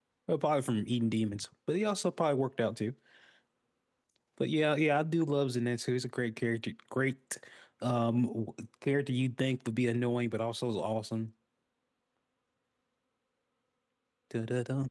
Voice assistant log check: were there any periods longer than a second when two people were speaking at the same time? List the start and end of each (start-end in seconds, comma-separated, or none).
none